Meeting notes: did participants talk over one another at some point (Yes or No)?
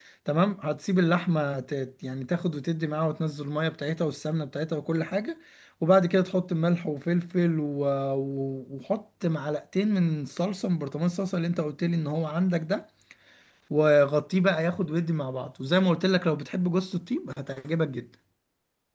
No